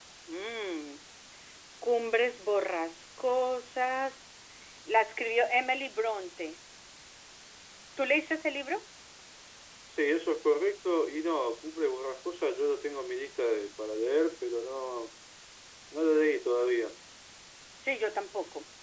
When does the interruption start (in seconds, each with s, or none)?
none